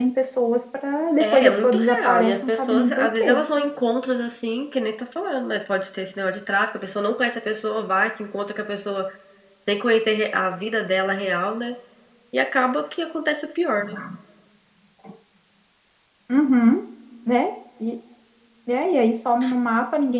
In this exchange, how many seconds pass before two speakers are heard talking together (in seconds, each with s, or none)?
1.2 s